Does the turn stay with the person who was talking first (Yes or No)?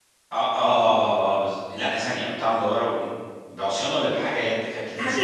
No